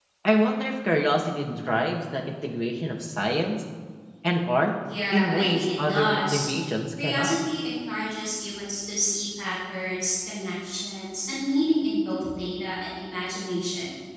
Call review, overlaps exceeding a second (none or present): present